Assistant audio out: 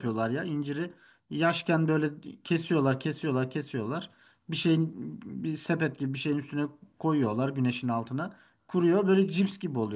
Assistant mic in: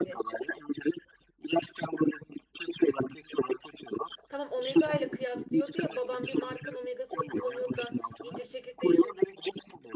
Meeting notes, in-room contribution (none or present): present